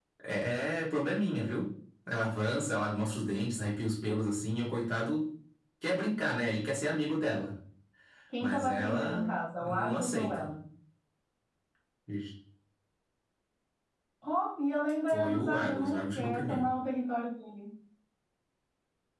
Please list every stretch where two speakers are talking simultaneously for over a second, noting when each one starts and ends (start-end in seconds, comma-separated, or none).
8.4-10.5, 15.1-16.7